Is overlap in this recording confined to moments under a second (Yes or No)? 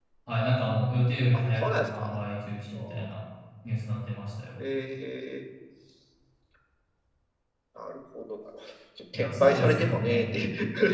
No